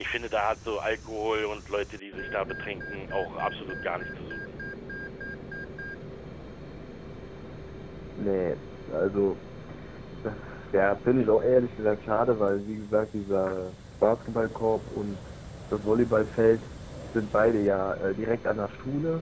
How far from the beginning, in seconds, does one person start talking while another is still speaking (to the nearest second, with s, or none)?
none